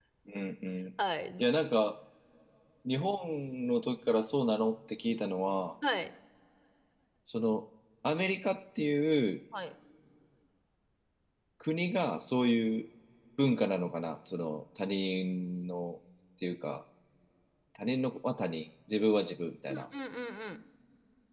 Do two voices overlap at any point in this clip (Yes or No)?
No